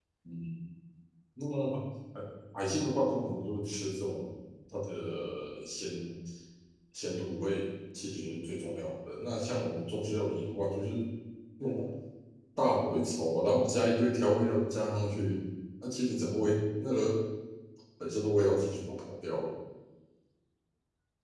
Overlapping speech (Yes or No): No